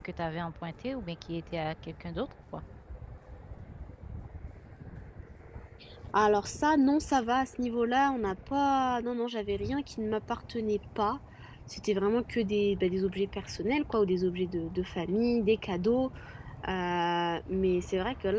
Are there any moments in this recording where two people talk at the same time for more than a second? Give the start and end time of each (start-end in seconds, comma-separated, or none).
none